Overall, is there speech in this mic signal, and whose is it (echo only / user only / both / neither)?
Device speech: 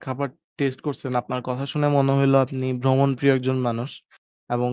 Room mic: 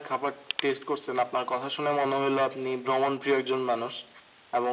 echo only